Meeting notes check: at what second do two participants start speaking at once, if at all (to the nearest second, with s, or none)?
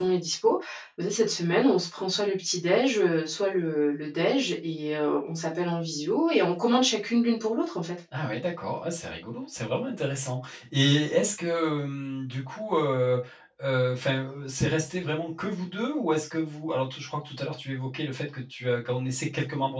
none